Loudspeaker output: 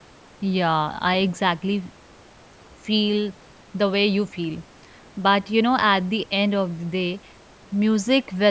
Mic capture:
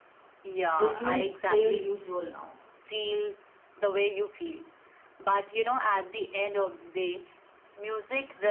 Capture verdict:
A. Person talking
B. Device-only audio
A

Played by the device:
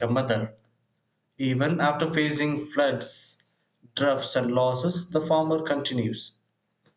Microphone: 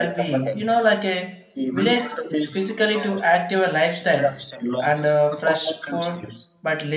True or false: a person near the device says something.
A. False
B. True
B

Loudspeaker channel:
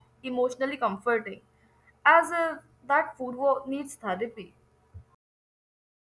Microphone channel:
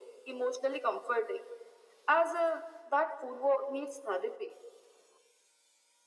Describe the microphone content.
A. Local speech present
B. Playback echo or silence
B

